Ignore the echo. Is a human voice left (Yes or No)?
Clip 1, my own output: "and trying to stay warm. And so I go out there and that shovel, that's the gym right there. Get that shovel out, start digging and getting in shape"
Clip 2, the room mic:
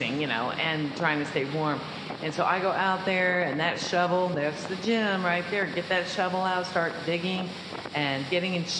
No